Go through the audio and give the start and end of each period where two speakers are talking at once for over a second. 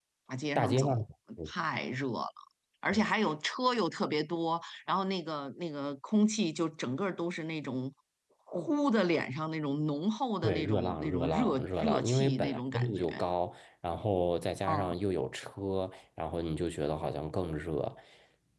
10.4-13.0

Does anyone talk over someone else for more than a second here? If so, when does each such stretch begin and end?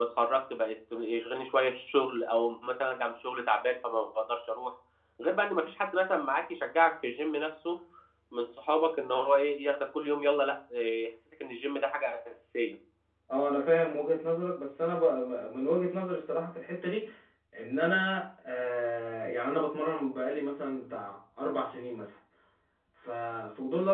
none

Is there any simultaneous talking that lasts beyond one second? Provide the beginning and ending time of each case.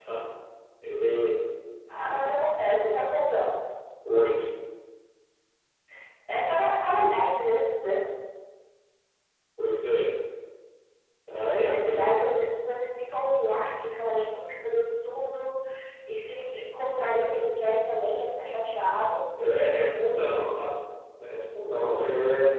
none

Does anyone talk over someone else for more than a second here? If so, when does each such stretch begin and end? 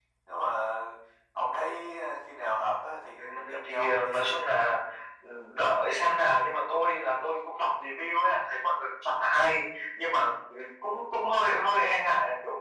3.2-4.5

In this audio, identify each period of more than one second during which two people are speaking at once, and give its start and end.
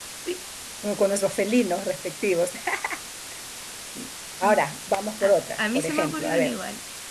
5.2-6.5

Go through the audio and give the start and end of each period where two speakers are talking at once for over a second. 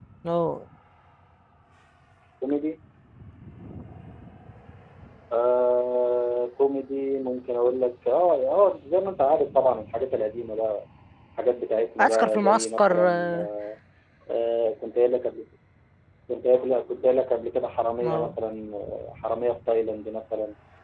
12.0-13.5

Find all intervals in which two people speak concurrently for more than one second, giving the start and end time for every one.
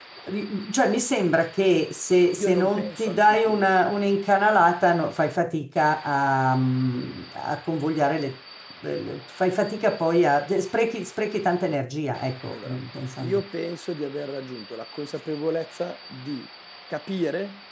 2.4-3.7

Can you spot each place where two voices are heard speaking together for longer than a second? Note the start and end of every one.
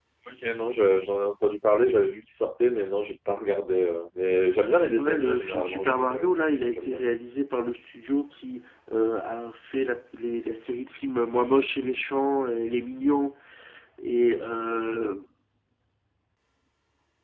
4.9-6.3

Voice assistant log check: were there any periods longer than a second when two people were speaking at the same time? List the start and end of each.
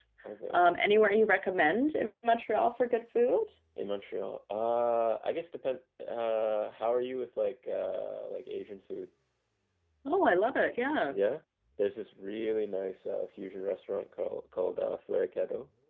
none

